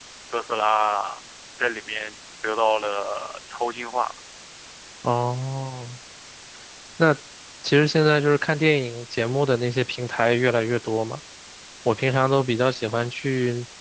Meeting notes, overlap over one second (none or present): none